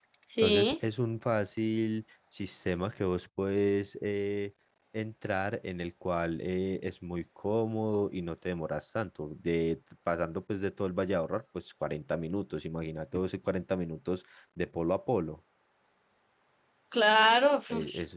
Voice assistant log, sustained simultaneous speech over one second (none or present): none